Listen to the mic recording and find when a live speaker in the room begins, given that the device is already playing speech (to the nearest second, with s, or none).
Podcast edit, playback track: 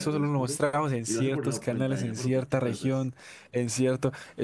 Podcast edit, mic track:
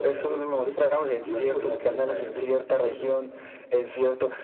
none